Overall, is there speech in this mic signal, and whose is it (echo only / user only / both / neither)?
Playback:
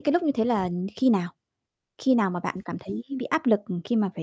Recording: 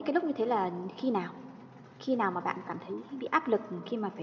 echo only